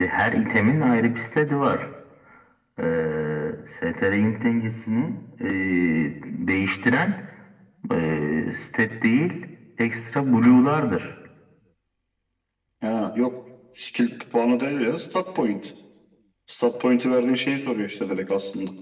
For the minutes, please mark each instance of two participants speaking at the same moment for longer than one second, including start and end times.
none

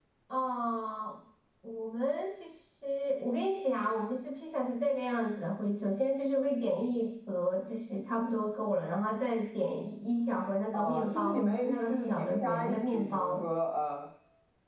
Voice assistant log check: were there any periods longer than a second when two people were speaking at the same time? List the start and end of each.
10.7-13.4

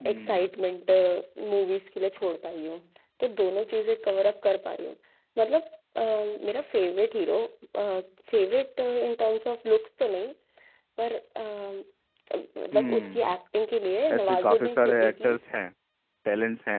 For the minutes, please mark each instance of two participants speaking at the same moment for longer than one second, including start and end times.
14.2-15.4

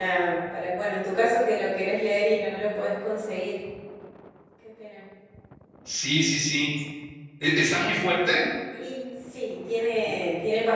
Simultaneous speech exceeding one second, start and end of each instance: none

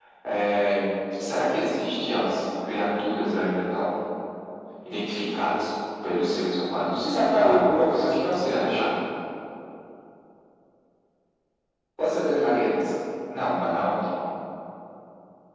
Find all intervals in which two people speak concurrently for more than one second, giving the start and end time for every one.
7.0-8.8

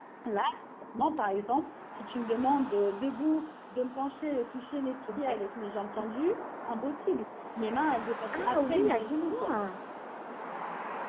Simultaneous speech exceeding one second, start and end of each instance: 8.3-9.6

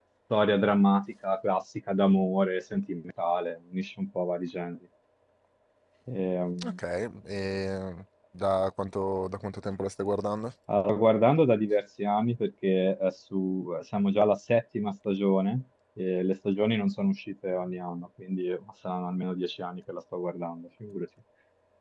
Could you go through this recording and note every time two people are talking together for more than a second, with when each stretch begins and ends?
none

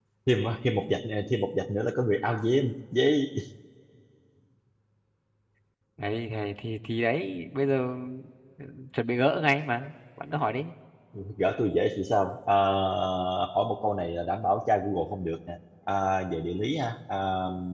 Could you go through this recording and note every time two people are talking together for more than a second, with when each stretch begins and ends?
none

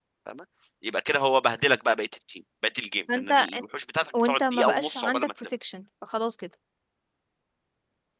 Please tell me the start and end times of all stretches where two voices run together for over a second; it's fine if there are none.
4.2-5.5

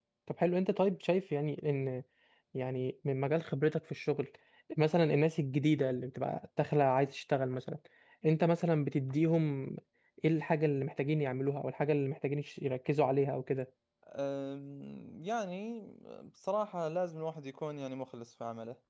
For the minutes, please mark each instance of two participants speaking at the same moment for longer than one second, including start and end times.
none

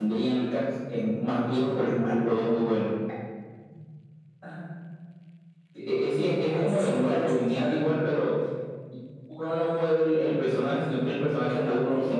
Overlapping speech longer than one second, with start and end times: 6.5-7.8

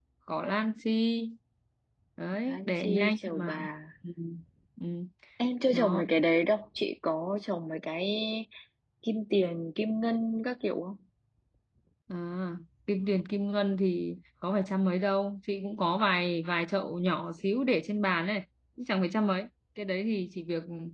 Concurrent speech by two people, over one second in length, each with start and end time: 2.4-3.7

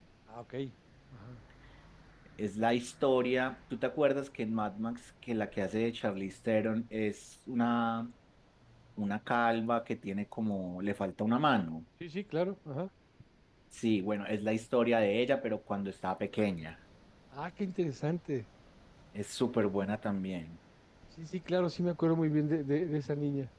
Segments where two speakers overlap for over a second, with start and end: none

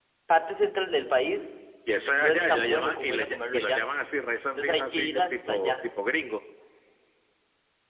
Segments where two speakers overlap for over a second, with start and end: 2.2-3.8, 4.4-5.7

